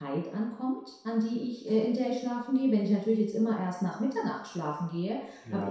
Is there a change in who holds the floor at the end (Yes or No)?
No